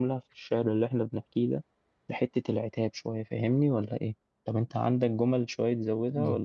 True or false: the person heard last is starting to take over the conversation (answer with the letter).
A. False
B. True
B